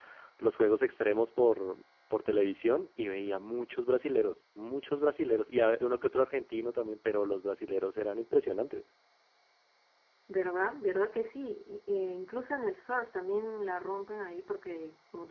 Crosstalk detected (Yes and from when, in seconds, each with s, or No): No